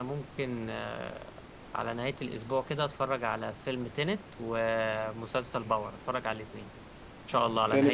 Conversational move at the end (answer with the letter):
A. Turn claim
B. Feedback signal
A